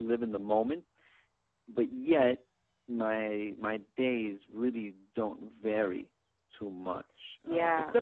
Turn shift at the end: No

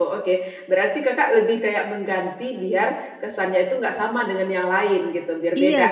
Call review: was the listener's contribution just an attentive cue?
No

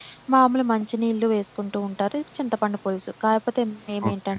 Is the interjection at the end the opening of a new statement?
No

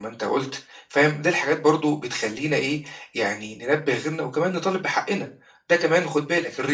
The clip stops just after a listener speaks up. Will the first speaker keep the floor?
Yes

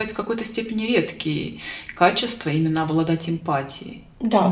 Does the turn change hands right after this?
Yes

